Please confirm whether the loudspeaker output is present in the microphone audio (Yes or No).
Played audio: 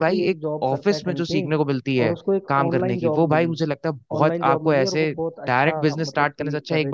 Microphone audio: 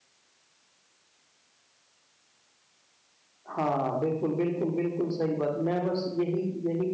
No